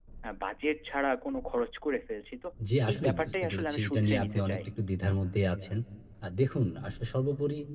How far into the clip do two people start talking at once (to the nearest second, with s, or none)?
3 s